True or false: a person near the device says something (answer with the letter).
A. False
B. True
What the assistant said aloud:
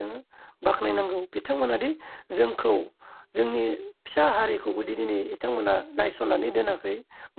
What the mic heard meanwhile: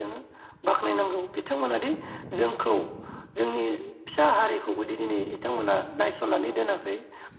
A